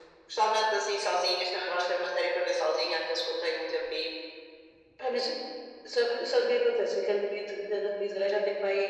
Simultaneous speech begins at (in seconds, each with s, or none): none